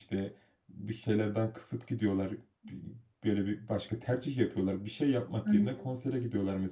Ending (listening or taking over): listening